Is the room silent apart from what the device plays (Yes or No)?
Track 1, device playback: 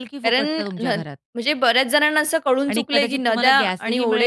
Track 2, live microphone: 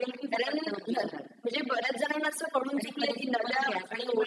Yes